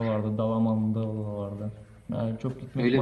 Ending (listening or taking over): listening